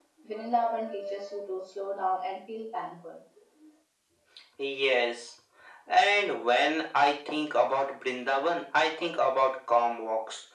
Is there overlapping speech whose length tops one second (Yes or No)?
No